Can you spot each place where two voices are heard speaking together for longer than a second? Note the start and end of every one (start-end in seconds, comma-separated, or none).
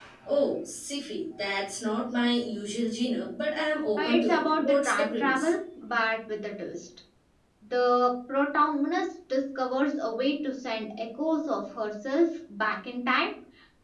4.0-5.5